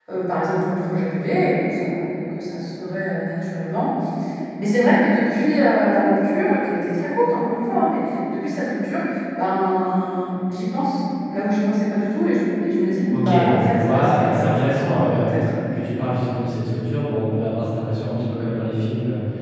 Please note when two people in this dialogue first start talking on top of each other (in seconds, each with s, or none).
13.1 s